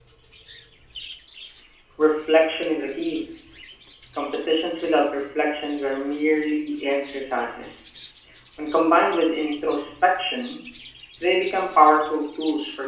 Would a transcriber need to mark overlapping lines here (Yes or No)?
No